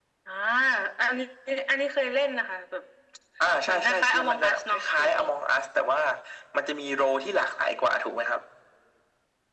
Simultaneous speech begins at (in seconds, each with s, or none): 3.7 s